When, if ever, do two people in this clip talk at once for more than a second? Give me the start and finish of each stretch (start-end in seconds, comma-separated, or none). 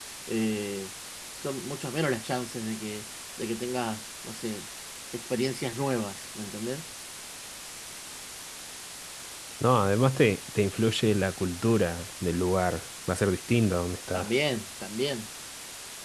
none